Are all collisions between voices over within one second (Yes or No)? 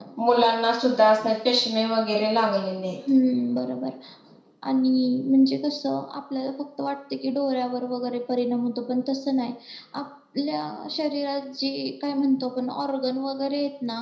Yes